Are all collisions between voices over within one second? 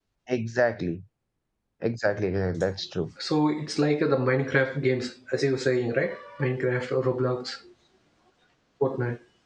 Yes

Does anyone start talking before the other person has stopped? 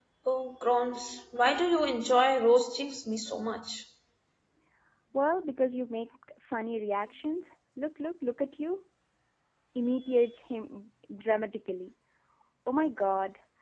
No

